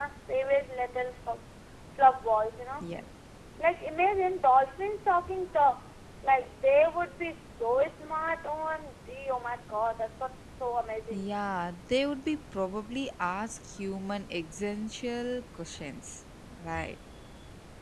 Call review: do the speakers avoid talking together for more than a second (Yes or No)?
Yes